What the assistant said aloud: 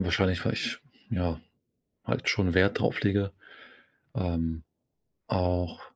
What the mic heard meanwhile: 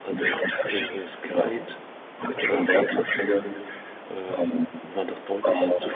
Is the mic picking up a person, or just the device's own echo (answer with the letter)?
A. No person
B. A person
B